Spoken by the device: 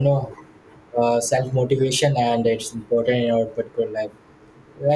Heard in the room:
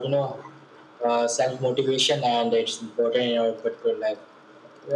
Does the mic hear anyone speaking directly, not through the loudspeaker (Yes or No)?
No